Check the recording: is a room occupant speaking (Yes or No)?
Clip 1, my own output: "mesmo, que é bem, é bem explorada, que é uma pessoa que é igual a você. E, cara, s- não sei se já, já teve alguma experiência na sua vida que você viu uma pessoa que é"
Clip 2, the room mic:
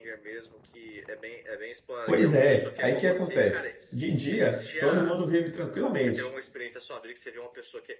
Yes